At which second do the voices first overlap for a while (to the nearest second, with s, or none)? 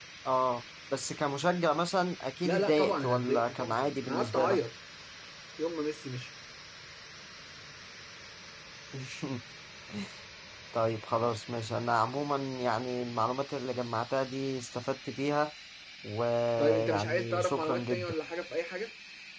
2 s